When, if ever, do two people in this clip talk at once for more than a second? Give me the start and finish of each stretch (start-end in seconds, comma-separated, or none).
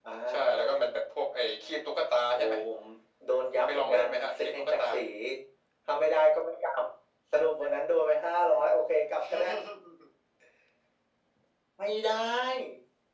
3.6-4.9